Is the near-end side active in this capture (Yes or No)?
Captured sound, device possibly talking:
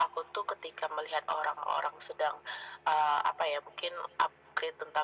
No